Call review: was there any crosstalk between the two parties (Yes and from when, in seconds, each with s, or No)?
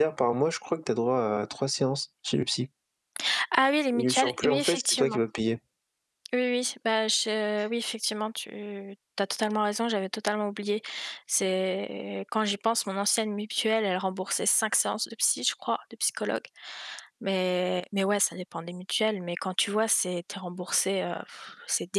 Yes, from 3.9 s